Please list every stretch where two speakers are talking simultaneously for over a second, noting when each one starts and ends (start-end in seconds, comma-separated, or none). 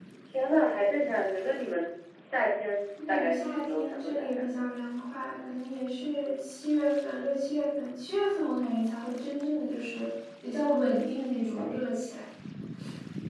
3.1-4.5